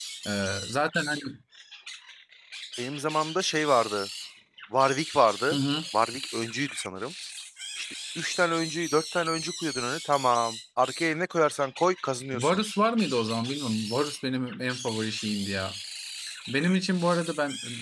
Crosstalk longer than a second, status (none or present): none